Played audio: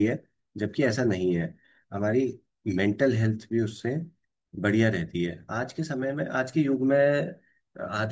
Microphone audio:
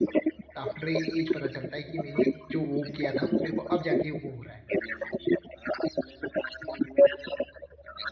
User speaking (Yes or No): Yes